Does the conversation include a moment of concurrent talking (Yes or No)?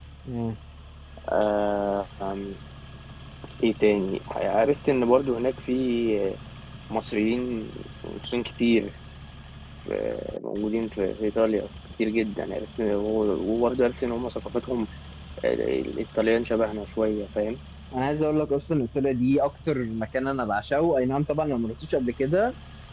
No